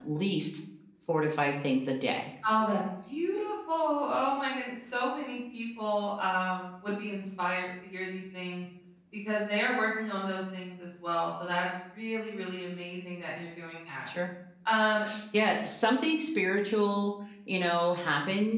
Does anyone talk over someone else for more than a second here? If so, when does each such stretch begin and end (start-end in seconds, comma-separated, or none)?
none